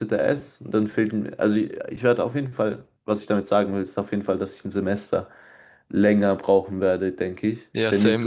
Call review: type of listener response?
taking over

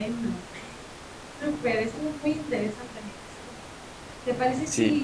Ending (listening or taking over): listening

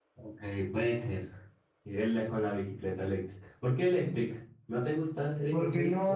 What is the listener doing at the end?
taking over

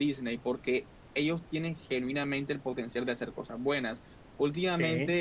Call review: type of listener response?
listening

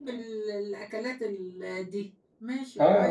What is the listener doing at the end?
taking over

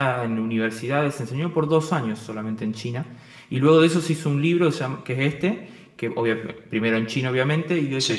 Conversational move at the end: listening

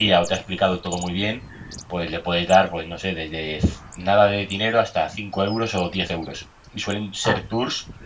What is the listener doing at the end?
listening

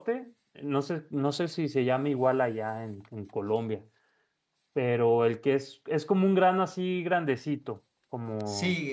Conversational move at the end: taking over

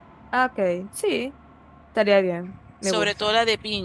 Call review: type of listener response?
taking over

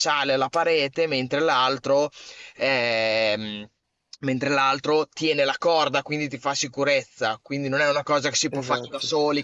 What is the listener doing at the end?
listening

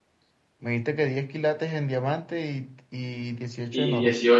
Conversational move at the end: taking over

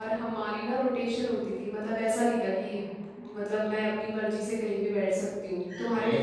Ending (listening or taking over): taking over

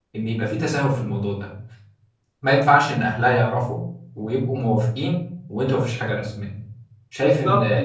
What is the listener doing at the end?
taking over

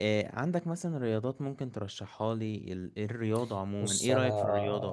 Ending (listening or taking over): taking over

